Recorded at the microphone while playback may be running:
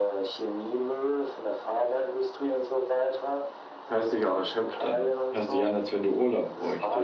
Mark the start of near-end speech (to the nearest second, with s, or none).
4 s